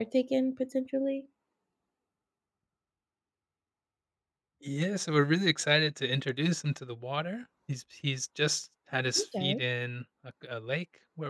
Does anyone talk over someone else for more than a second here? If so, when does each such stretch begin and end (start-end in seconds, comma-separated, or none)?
none